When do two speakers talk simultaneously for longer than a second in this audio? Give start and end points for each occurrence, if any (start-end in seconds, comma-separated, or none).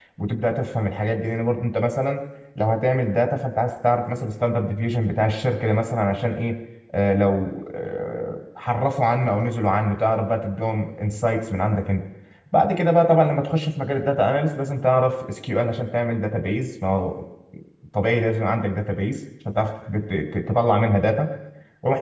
none